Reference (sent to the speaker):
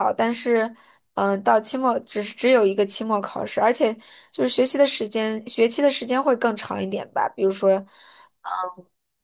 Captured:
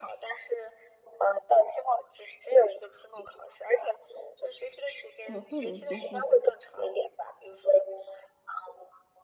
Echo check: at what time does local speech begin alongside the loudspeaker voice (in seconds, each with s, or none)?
5.2 s